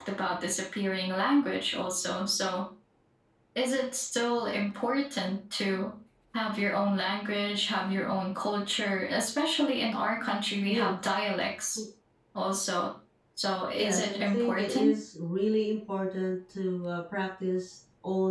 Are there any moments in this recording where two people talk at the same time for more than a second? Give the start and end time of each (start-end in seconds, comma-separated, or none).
13.7-15.0